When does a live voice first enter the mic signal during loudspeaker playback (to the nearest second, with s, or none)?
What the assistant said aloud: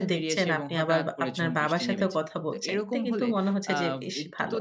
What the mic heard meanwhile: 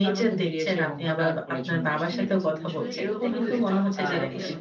2 s